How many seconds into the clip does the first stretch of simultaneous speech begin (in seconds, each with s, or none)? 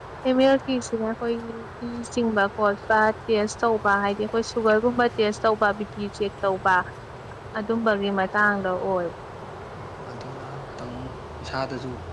none